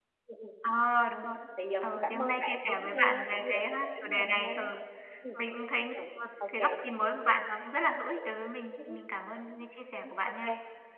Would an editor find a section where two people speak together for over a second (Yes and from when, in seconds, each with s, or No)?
Yes, from 1.9 s